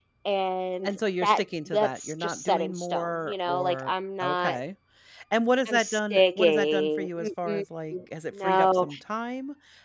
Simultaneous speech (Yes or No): Yes